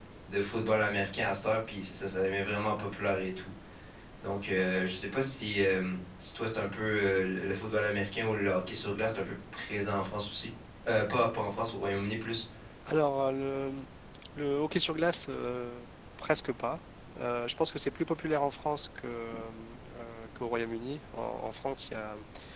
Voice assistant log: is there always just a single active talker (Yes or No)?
Yes